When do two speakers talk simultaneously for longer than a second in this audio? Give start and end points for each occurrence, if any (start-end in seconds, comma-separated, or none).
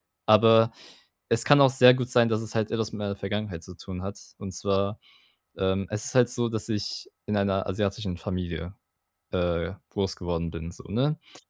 none